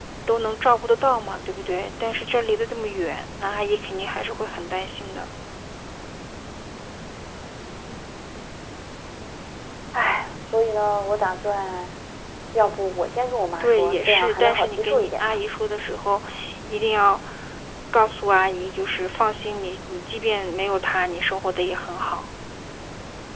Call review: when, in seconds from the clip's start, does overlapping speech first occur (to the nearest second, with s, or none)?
14 s